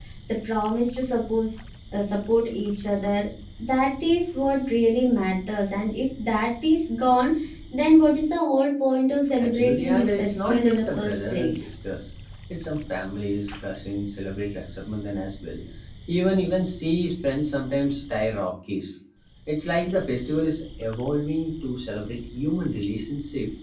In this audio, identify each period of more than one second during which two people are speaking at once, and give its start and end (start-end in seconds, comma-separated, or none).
9.4-11.5